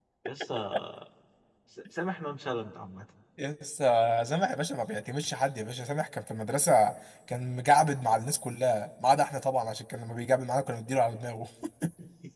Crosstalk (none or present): none